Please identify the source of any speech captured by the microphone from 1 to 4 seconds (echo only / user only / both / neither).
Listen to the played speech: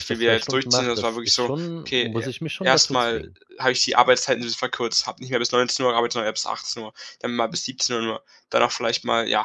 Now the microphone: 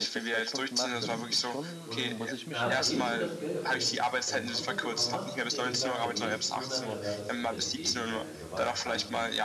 both